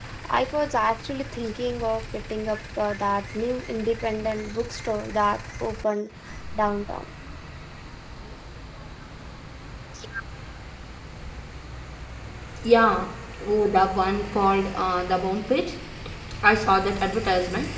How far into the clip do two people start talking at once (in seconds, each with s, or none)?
none